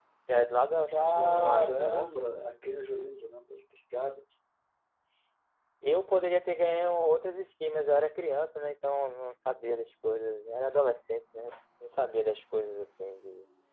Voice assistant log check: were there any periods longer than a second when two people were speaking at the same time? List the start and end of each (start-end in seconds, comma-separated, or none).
0.9-2.2